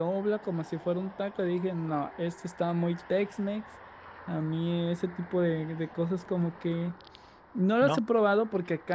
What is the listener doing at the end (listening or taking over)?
listening